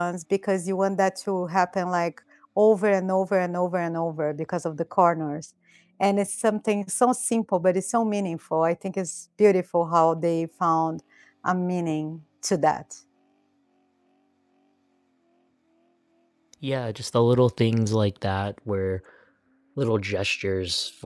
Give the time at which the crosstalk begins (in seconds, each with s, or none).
none